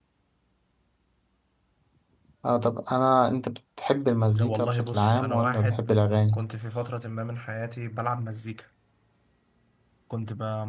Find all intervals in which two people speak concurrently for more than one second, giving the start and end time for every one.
4.3-5.9

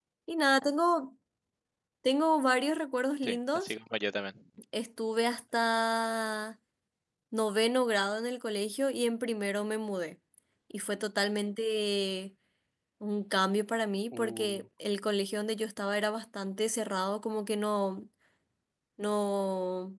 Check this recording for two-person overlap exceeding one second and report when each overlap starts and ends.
none

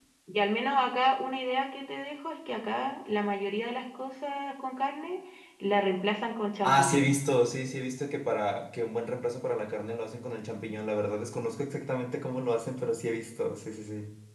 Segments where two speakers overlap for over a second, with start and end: none

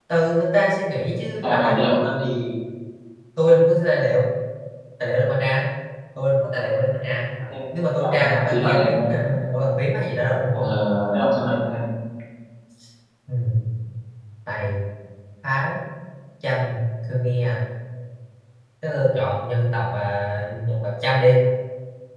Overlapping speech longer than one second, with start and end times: 7.9-9.1

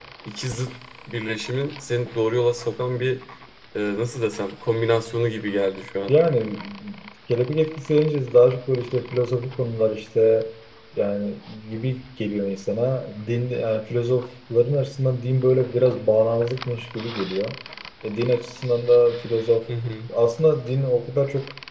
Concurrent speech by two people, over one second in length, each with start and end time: none

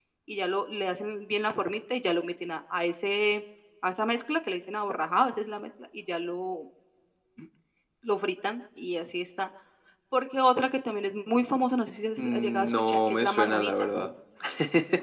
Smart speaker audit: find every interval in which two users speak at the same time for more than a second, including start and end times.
12.2-13.9

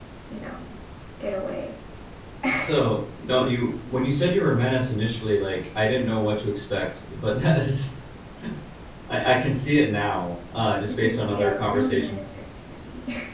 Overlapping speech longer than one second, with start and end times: 10.9-12.2

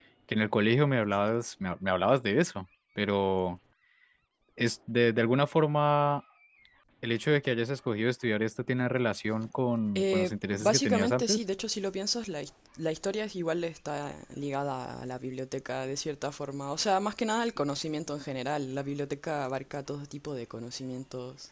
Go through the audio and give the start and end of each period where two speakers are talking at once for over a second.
9.9-11.4

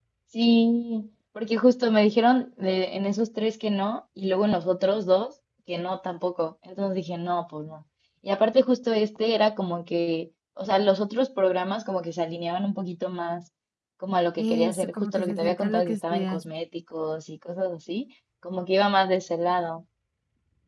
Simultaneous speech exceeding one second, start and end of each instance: 14.4-16.4

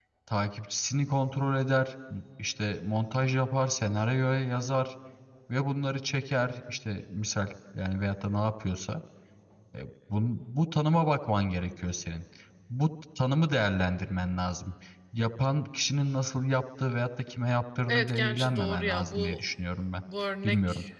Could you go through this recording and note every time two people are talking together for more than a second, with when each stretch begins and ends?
17.9-19.4

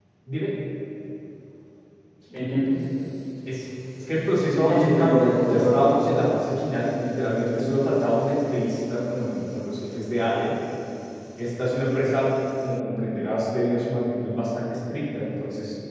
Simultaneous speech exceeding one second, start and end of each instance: 4.5-5.8

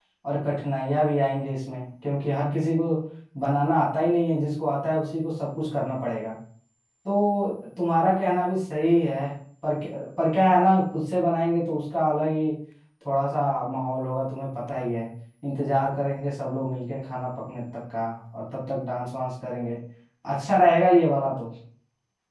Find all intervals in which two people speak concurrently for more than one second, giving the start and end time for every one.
none

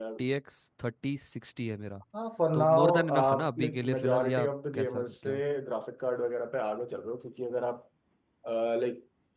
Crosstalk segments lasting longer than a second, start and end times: 2.5-5.4

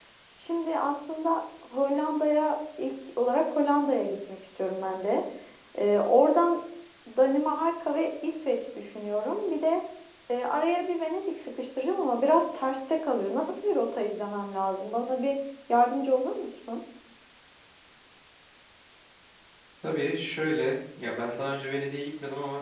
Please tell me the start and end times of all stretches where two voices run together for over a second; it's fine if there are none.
none

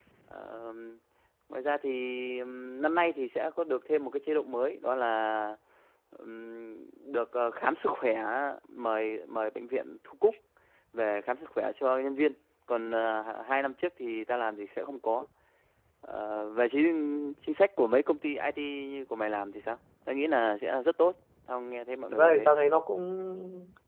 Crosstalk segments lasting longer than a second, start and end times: none

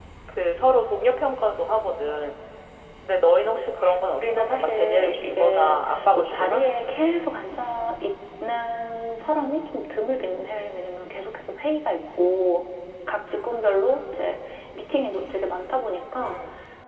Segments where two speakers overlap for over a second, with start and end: 4.2-6.6

